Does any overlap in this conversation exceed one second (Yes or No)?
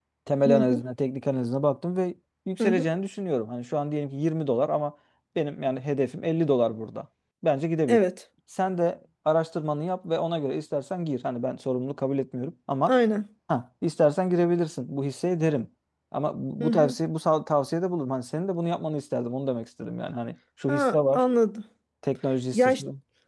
No